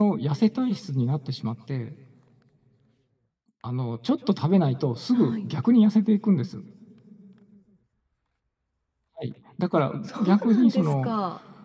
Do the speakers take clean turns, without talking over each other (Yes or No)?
No